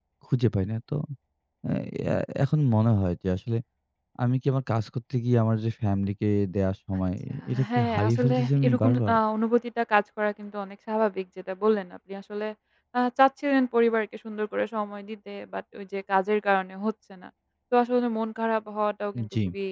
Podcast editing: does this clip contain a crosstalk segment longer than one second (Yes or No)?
Yes